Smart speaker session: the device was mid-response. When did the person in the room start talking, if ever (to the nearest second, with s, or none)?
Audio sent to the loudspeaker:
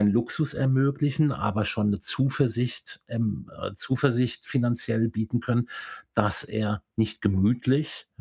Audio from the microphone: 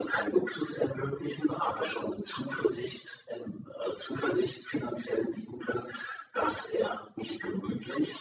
none